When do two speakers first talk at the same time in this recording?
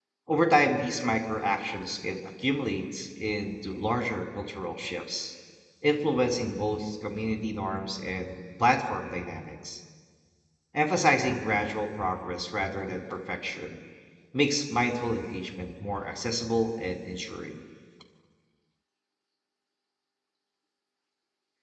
none

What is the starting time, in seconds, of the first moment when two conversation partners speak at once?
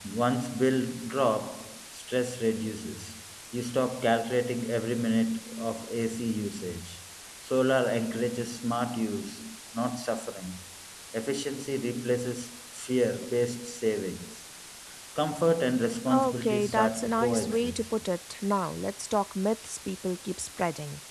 16.1 s

